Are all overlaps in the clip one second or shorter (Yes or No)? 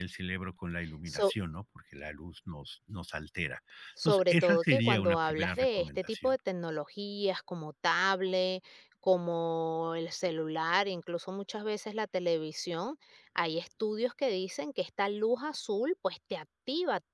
No